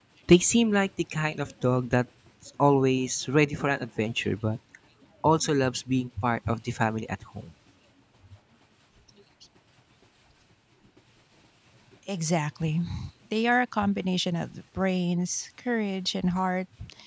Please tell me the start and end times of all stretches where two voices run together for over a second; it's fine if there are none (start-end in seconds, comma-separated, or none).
none